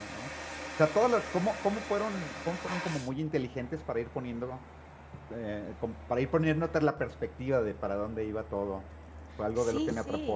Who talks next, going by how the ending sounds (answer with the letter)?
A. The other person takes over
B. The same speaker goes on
B